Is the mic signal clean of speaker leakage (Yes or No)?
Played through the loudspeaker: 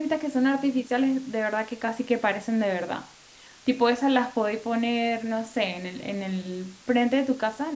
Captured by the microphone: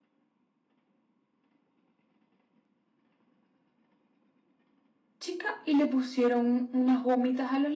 Yes